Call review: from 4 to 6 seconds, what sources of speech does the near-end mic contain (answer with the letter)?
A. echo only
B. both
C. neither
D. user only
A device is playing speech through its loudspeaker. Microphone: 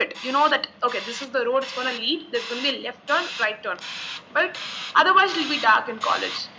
A